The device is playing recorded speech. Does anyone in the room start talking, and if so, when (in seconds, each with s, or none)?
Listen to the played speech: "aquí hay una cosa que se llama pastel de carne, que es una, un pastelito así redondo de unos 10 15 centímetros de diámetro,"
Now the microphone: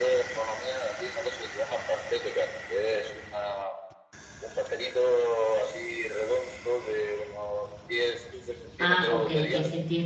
8.8 s